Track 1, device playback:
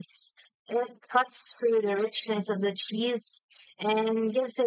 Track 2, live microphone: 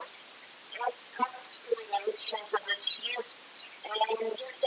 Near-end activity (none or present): none